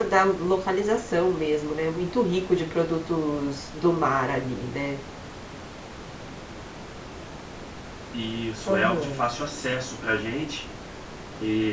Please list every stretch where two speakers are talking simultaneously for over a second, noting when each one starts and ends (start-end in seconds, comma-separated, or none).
none